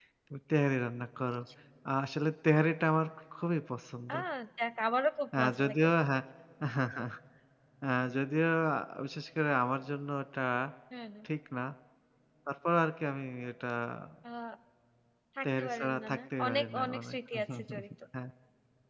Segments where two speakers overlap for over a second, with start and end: 15.4-17.1

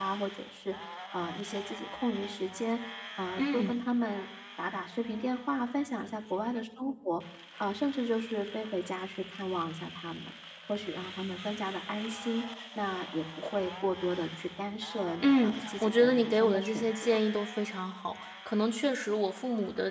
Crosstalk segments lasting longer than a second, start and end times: 15.2-17.2

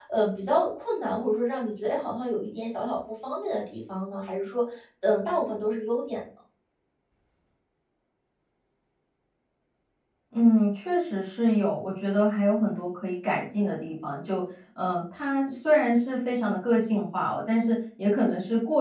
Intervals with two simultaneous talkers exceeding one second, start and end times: none

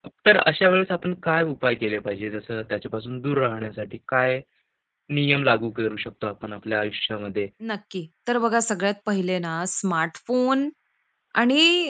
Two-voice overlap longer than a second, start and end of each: none

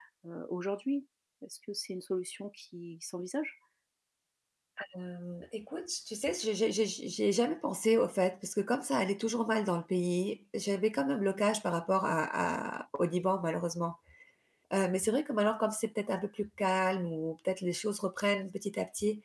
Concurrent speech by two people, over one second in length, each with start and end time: none

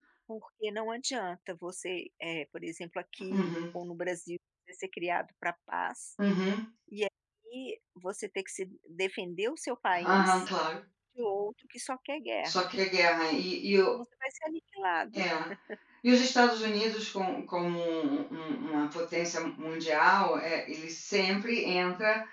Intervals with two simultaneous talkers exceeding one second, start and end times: none

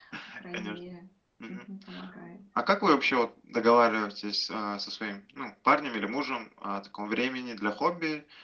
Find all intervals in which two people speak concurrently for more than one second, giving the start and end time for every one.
none

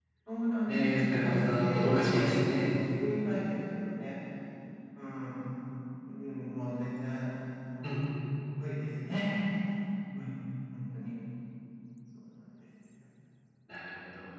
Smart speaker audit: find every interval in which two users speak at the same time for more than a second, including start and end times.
0.7-2.4

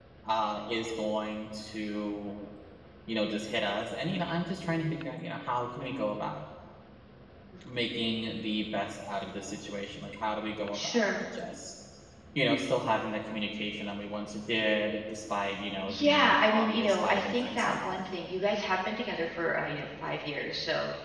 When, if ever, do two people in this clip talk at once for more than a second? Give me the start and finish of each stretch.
15.9-18.0

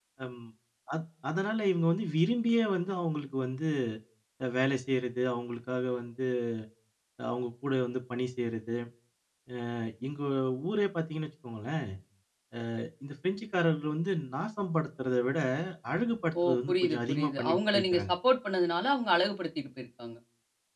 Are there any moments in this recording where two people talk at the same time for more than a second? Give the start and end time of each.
16.4-18.1

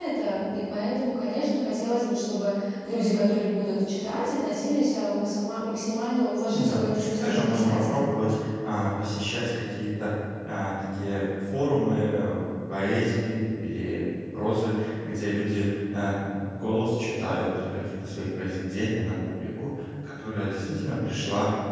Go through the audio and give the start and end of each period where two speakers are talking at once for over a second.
6.5-8.0

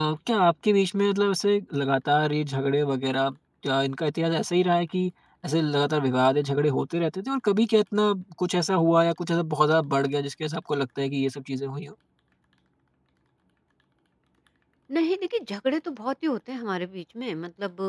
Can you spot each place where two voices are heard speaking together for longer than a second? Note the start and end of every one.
none

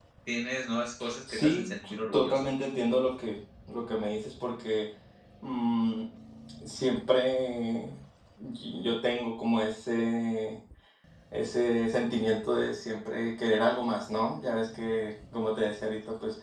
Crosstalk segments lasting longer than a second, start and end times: 1.3-2.5

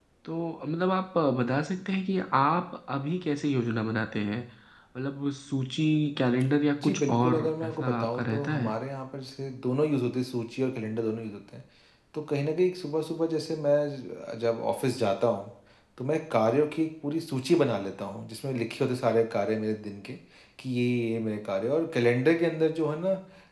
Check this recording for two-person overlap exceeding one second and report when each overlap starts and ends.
6.8-8.7

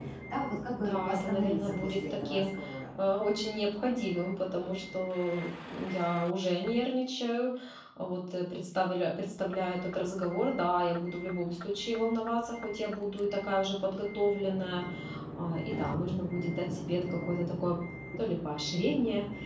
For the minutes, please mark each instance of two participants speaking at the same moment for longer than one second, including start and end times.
0.8-2.5

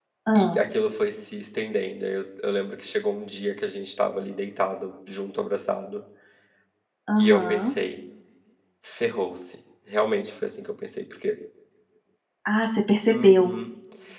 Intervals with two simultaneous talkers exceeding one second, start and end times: none

